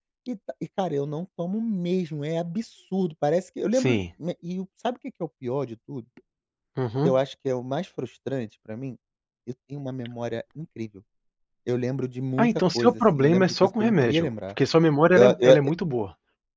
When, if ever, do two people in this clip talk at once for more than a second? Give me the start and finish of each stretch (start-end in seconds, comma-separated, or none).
12.4-14.3